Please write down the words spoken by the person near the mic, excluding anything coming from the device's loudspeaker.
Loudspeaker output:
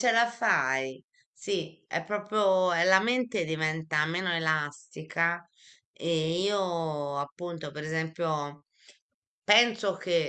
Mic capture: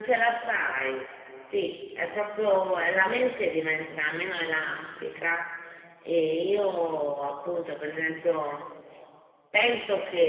none

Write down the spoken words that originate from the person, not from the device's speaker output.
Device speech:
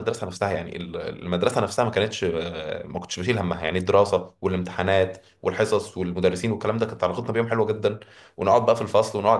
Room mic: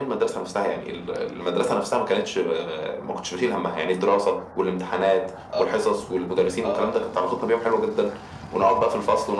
اه اه آه.

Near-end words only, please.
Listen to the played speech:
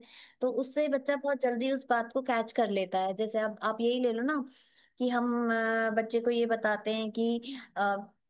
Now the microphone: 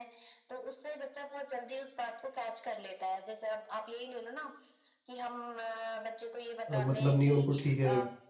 अ, मतलब नहीं है उनको ठीक है

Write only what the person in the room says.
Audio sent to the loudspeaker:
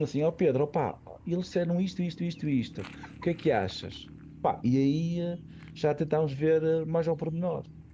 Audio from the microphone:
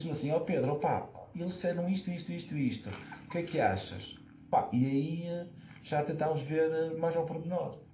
none

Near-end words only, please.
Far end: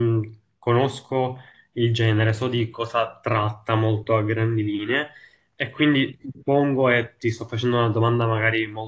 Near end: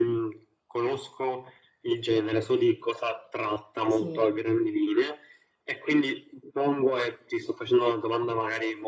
Sì,

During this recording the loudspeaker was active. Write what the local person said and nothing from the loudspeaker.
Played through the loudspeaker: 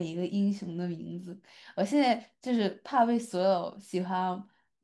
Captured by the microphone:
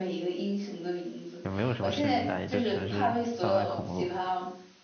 也没有什么深明大义，就纯是贩卖恐怖。

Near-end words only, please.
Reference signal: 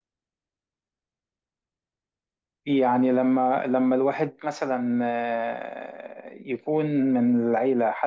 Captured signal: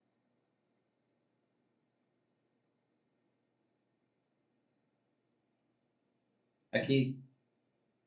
اكيد

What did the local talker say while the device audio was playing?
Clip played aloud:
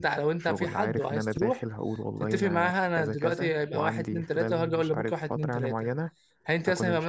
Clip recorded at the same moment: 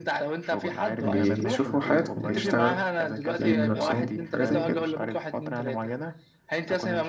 بيشوفوا حياتهم بيشتغلوا يبنوا نفسهم حاجة زي كده

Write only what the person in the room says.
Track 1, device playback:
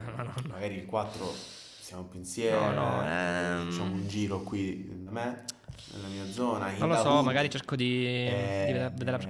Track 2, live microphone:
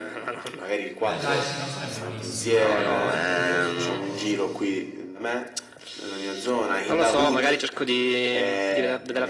Beh, dai, sì, non sarebbe malissimo. Io piuttosto, piuttosto

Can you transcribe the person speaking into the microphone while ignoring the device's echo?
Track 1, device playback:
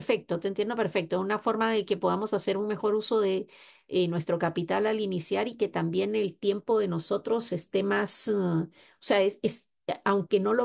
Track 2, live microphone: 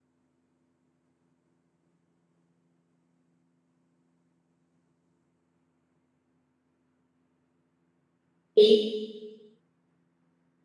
Sí.

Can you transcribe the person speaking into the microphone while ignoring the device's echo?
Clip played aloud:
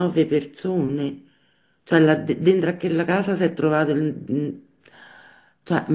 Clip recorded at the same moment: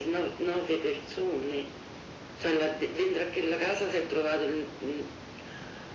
none

